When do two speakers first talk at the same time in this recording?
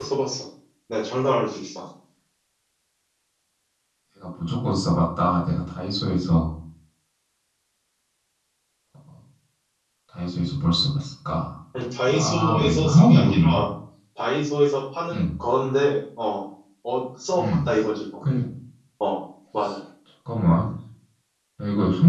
12.1 s

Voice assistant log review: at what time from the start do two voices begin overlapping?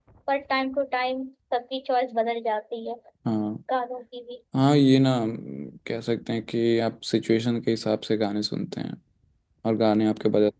none

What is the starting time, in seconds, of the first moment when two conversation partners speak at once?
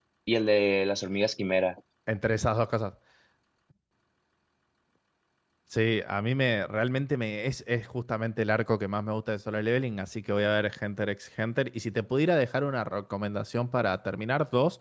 none

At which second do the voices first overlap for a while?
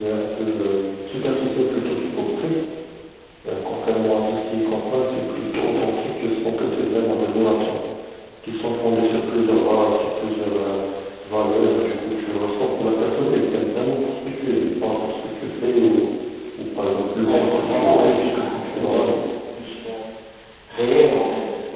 17.2 s

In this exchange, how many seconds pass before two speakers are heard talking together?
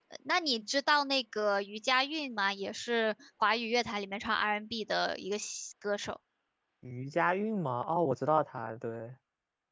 none

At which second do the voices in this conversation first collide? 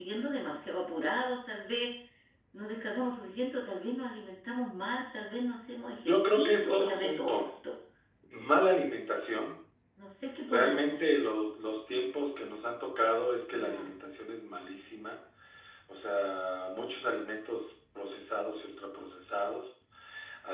6.1 s

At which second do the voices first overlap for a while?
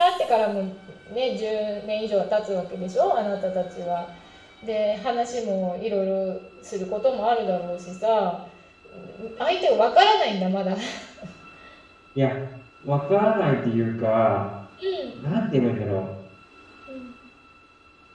none

